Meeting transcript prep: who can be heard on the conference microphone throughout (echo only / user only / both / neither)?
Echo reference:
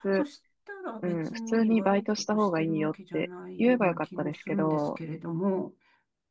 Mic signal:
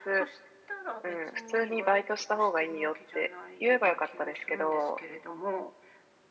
echo only